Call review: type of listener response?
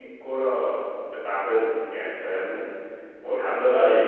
listening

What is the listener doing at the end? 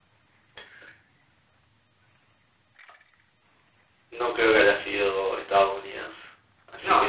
listening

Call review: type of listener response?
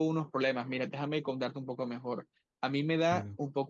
listening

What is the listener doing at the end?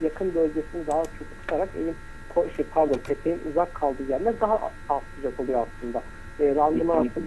listening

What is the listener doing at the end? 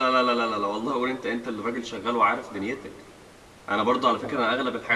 listening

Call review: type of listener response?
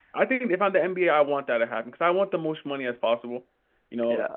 listening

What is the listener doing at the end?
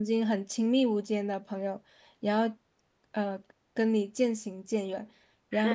listening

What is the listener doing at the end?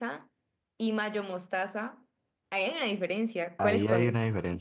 taking over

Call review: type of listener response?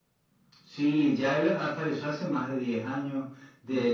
listening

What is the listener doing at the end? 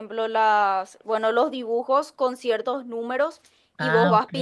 listening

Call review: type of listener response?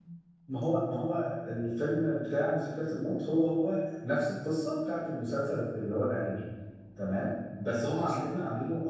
listening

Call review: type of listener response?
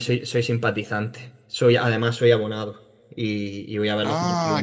taking over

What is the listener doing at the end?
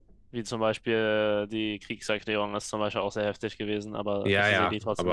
taking over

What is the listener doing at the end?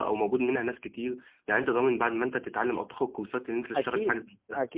taking over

